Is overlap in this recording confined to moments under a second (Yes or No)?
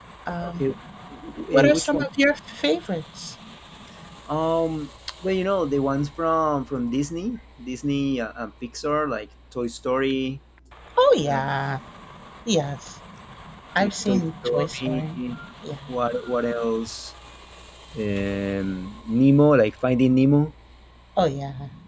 No